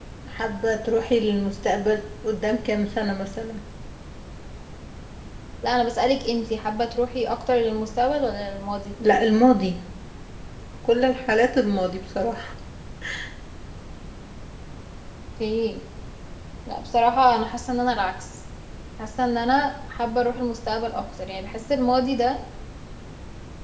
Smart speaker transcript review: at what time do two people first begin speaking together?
none

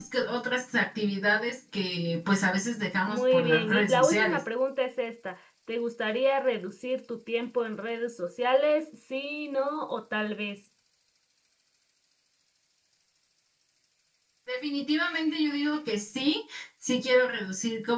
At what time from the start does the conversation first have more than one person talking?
3 s

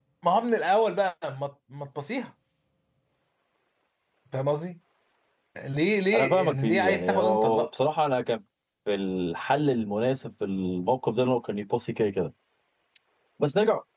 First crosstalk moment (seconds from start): 6 s

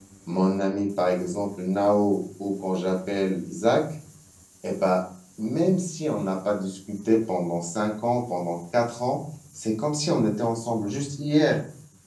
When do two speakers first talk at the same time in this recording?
none

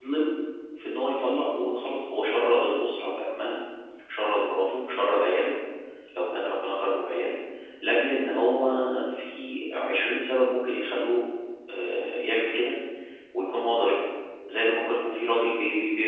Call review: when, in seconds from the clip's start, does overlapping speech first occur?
none

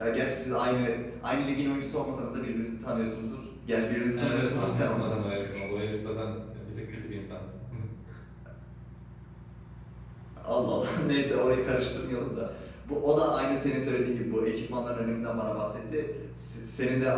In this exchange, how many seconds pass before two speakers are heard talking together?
4 s

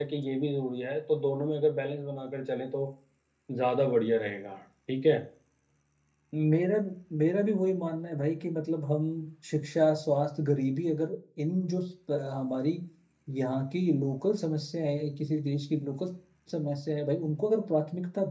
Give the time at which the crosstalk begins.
none

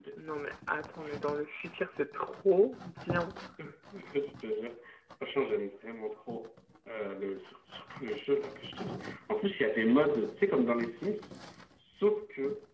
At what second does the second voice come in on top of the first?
none

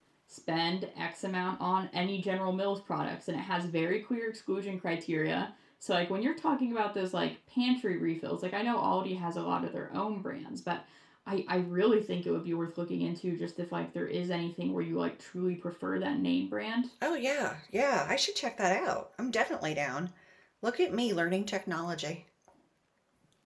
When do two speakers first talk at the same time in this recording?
none

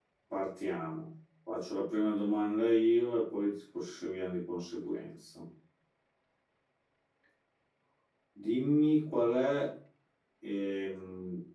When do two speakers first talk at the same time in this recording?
none

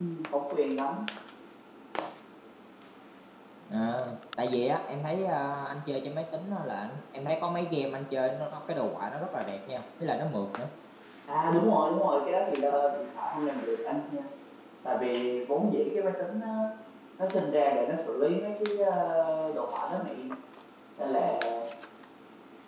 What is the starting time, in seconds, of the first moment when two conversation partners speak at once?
none

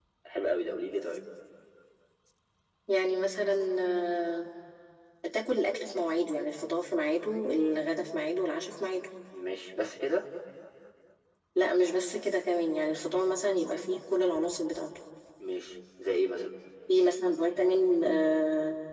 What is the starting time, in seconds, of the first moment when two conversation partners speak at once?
none

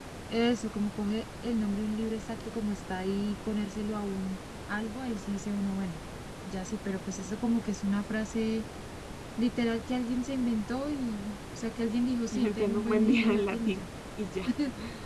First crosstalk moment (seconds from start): 12 s

